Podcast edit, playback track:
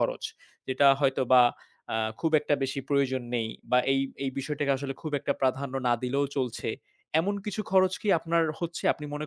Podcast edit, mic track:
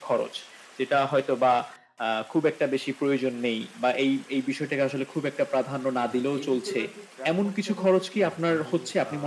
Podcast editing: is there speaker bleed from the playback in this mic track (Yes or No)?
Yes